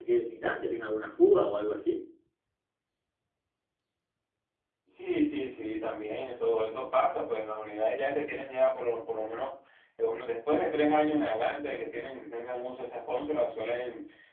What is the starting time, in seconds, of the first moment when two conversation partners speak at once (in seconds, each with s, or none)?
none